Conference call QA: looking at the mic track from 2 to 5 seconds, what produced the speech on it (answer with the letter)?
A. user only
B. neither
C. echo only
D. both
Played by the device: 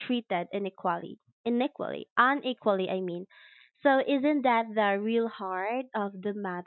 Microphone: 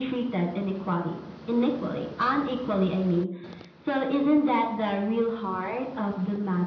C